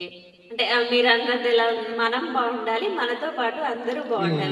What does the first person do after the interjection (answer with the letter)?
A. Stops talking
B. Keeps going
A